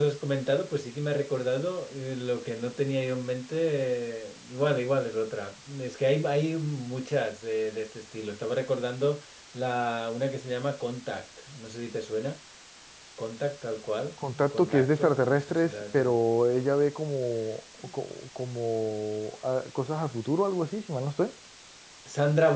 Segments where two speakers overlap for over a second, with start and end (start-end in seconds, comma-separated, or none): 14.3-16.1